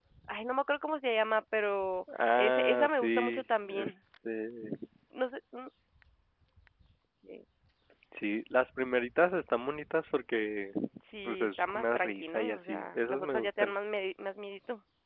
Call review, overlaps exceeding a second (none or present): present